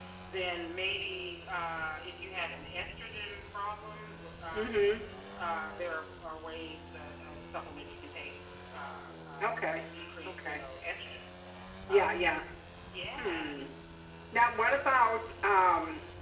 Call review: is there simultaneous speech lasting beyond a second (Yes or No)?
No